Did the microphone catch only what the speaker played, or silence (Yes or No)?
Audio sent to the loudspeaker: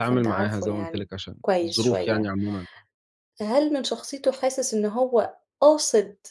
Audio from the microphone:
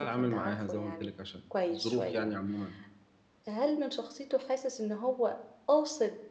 Yes